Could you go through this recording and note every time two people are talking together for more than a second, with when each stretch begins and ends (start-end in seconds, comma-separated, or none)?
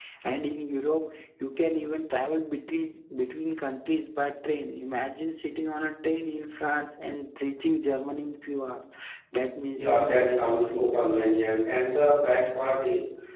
9.7-11.0